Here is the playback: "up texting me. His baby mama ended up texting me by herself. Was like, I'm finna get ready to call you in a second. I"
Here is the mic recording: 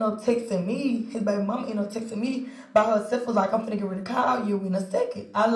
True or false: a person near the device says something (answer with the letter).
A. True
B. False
B